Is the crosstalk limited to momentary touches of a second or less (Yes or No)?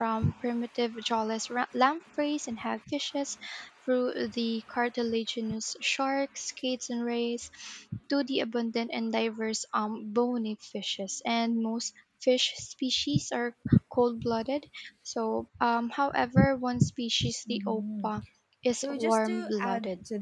No